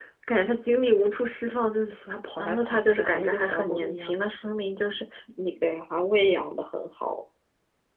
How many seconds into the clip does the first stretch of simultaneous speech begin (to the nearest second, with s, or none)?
2 s